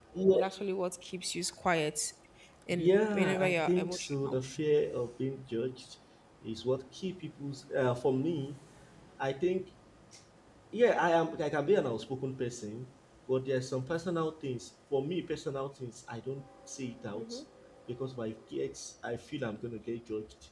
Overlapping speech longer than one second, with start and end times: 2.7-4.4

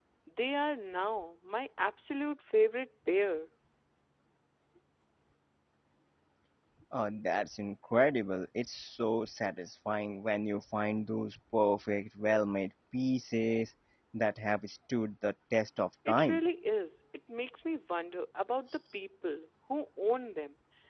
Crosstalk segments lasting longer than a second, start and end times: none

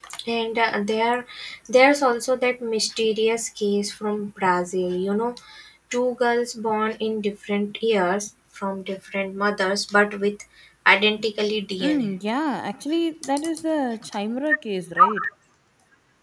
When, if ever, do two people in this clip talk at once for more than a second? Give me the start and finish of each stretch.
none

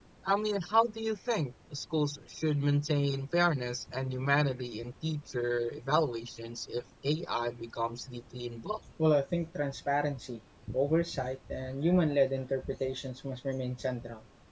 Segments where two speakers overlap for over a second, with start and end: none

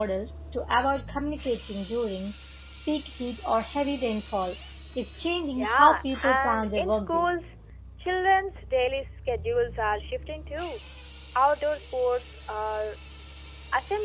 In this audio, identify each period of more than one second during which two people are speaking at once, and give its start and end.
5.6-7.3

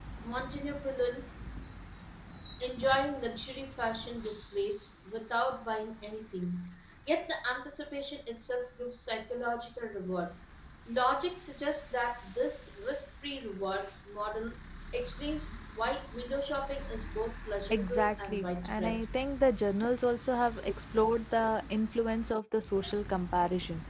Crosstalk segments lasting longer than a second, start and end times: 17.7-19.1

